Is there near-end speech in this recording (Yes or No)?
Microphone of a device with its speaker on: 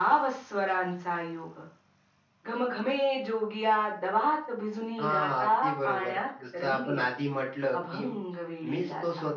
No